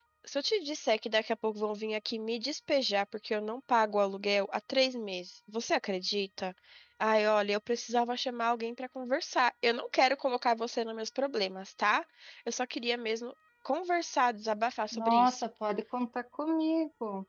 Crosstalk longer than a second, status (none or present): none